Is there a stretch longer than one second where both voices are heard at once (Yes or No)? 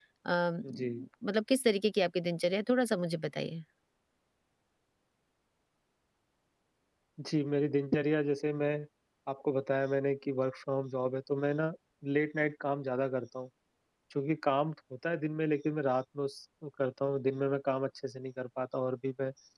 No